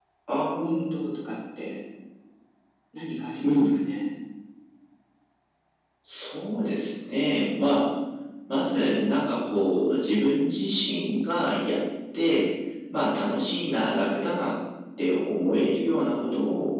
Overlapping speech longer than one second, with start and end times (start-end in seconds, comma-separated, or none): none